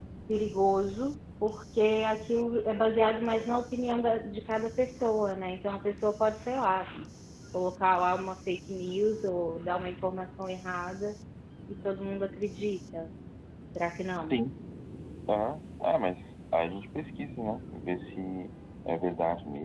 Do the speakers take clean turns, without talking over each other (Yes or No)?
Yes